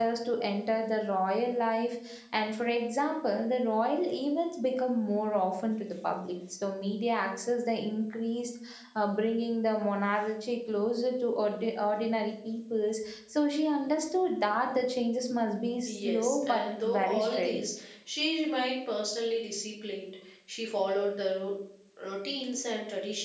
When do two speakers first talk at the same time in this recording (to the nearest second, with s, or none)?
16 s